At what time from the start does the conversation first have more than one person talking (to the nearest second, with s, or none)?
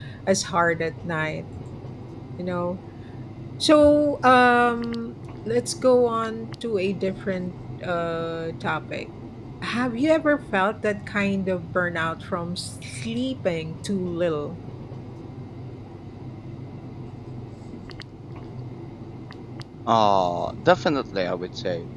none